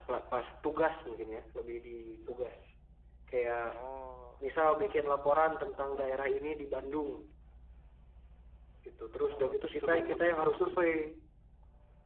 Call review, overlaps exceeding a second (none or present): present